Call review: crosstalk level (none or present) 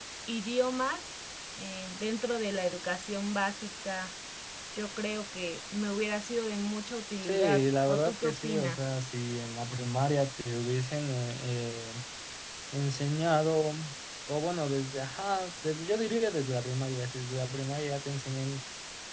present